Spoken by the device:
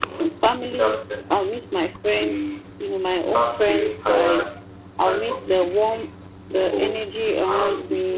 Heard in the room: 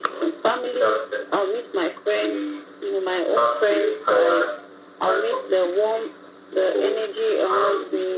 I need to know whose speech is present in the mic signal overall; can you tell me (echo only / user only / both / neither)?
echo only